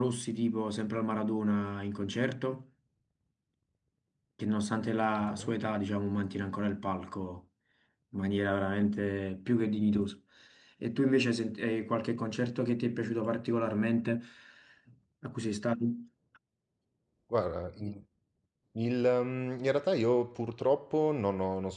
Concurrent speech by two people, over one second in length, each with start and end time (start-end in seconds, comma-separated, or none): none